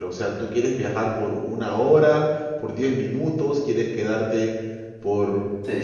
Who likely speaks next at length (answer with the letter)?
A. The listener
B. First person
A